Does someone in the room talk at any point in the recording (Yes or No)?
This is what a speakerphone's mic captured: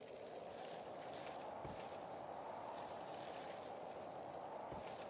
No